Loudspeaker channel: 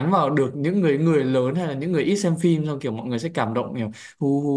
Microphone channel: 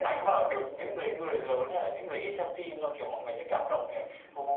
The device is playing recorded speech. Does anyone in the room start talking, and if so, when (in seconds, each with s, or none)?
none